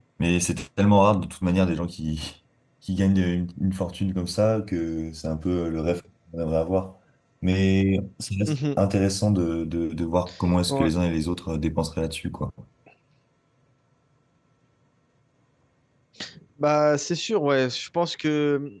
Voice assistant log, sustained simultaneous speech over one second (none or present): none